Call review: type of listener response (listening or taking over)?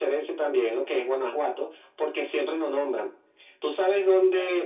listening